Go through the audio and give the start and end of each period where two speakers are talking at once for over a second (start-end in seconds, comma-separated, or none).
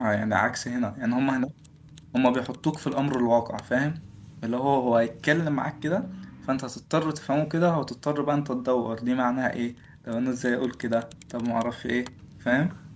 none